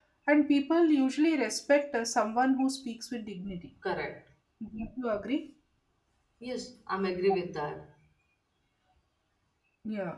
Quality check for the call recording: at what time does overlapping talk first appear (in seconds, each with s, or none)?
none